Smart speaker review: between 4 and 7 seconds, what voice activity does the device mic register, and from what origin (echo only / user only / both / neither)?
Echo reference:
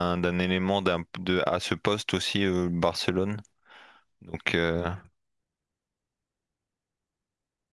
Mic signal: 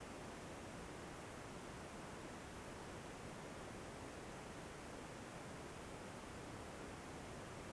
neither